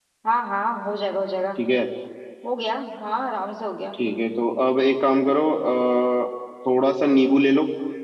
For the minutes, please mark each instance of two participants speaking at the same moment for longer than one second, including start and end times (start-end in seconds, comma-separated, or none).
none